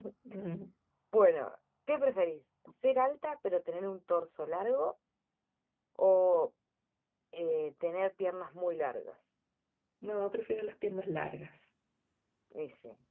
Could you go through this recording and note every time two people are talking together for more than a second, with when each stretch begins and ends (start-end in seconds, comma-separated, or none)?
none